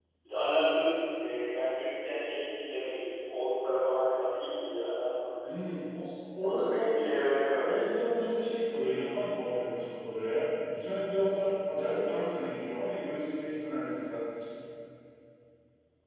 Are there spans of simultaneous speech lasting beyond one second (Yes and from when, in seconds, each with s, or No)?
No